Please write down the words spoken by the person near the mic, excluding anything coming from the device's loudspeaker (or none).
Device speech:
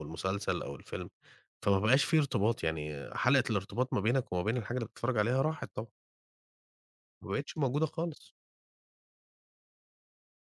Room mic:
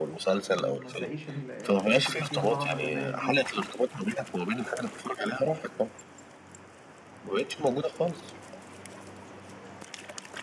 إمم، ما تلاقيش ال الحاجات اللي فيها طعم زمان دي،